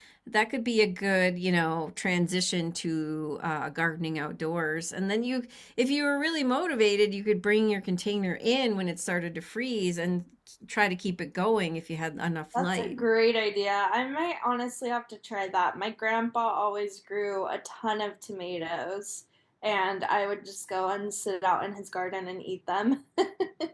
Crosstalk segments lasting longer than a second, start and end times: none

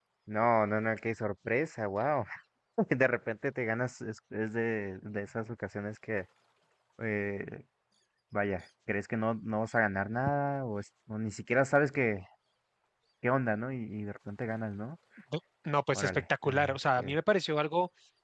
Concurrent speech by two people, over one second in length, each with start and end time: 15.9-17.2

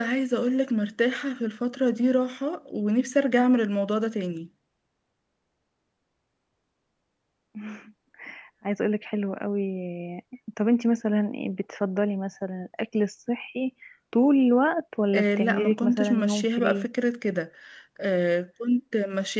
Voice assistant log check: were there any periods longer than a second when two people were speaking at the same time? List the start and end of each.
15.1-16.9

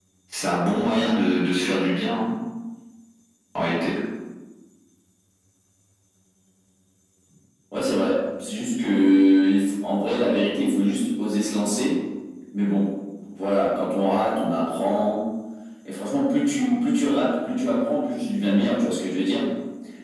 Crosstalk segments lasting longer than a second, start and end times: none

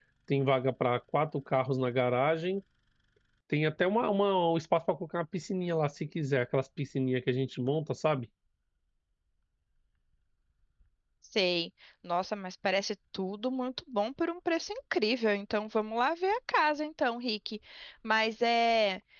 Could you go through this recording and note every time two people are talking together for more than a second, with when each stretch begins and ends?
none

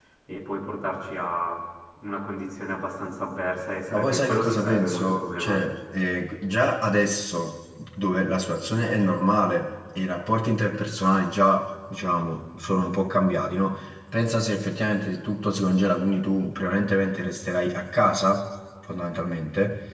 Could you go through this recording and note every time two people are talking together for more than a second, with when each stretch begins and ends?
3.9-5.6

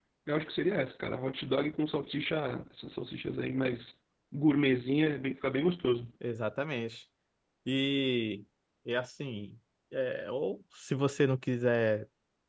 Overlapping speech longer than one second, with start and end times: none

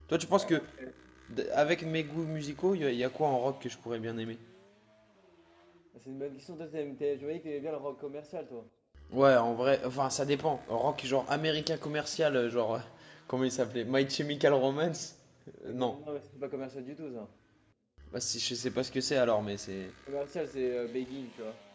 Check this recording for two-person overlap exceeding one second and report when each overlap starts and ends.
none

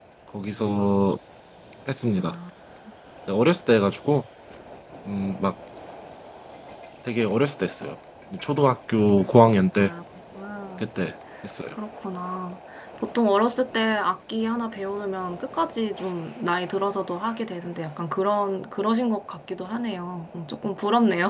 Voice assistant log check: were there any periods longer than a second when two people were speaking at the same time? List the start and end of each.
none

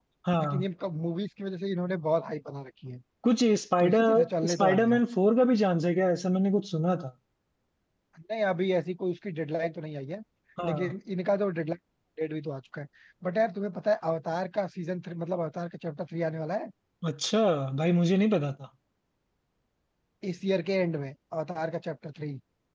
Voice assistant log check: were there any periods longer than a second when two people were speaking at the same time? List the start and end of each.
3.8-5.0

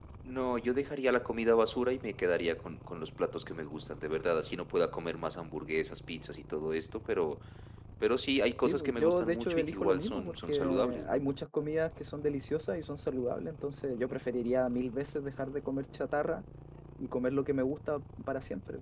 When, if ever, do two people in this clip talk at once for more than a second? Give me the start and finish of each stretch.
8.6-11.2

